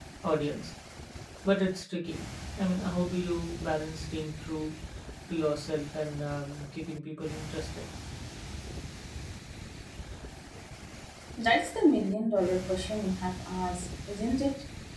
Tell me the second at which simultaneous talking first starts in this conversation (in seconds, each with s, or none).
none